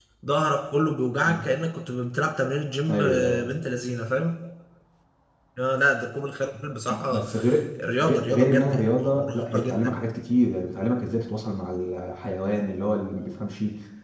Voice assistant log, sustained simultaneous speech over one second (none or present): present